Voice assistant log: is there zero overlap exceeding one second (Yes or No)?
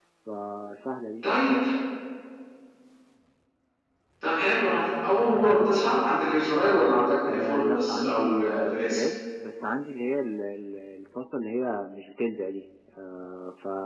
No